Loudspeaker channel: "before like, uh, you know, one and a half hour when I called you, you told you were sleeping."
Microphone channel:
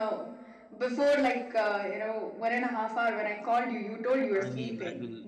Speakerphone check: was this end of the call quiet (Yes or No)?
No